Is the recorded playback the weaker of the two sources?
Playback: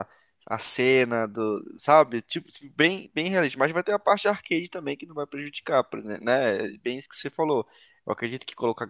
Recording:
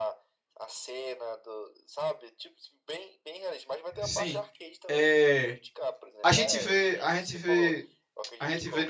Yes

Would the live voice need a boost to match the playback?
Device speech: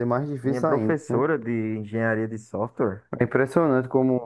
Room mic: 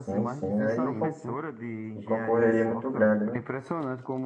No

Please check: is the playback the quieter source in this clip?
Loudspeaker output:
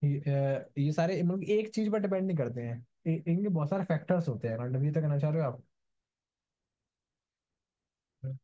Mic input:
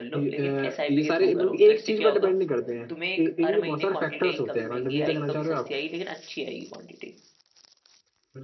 No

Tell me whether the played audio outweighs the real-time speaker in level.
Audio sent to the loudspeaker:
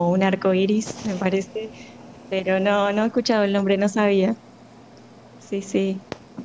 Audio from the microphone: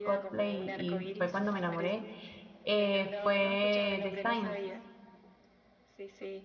No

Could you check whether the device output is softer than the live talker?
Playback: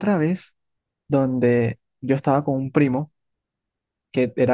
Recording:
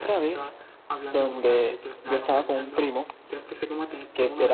No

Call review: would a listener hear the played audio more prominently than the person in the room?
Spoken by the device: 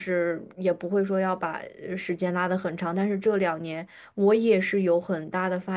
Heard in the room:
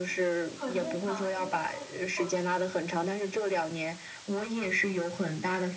Yes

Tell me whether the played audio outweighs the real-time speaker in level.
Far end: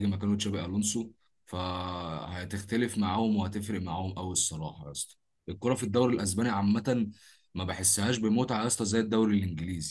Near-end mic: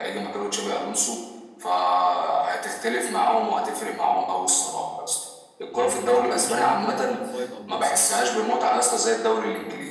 Yes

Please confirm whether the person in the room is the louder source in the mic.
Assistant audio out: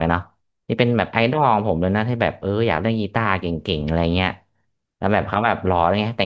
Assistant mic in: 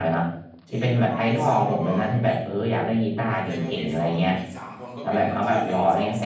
No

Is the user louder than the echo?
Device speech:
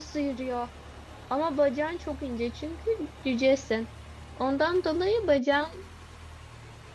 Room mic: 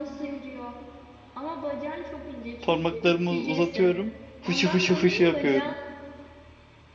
Yes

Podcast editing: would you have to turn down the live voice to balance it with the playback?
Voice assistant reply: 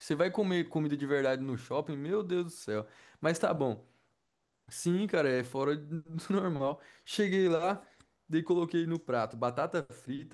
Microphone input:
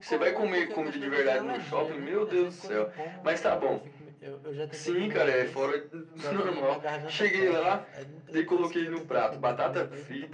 No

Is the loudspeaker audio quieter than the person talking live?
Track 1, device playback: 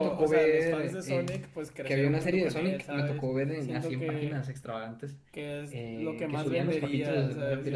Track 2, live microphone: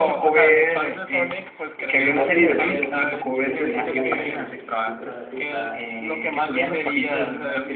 No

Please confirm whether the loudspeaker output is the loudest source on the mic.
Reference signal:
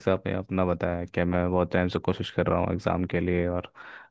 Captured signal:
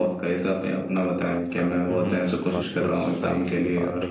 Yes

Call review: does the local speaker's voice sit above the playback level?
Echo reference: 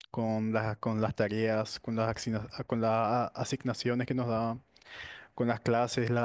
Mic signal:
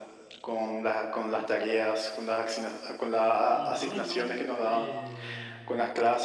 No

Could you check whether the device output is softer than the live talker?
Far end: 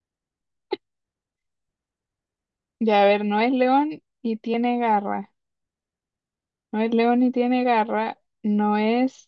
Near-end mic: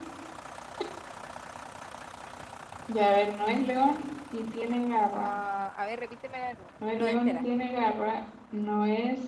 No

